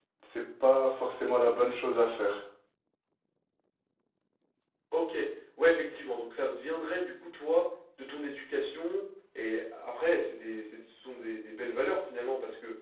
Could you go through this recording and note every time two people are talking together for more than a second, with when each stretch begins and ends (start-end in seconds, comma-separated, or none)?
none